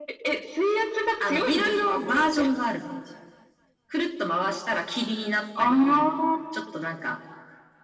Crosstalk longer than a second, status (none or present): present